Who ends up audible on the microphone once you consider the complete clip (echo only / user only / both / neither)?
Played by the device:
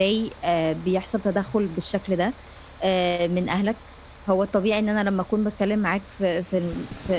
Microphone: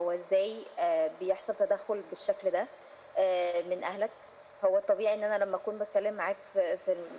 echo only